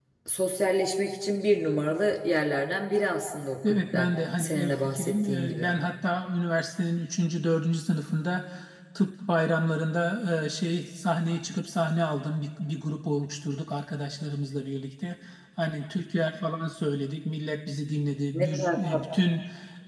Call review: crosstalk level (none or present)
present